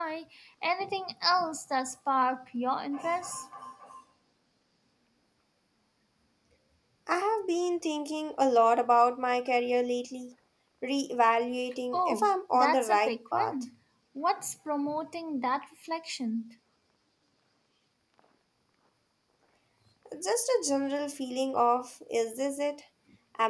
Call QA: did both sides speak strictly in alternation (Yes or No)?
No